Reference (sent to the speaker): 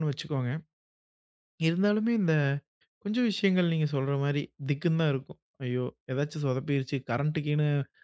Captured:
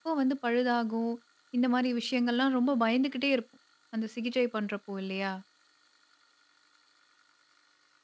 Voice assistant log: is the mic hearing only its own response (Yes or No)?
No